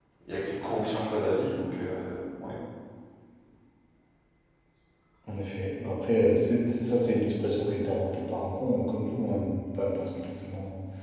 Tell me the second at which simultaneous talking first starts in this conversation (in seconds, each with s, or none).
none